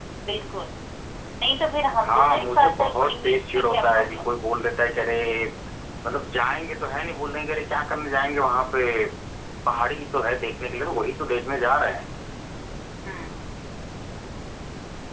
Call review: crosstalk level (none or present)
present